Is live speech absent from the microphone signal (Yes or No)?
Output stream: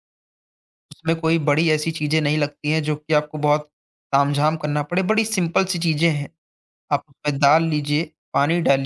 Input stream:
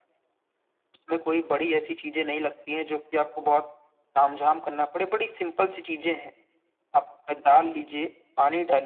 Yes